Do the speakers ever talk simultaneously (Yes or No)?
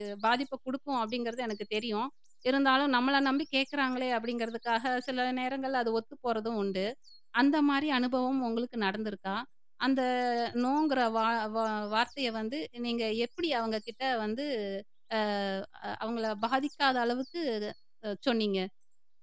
No